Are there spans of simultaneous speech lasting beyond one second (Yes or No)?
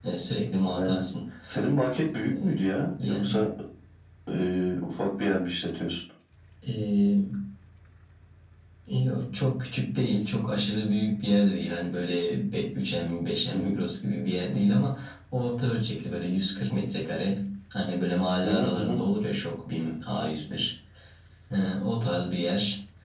No